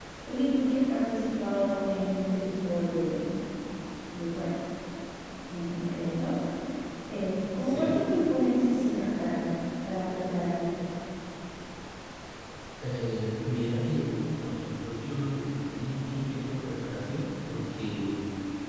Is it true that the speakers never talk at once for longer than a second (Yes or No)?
Yes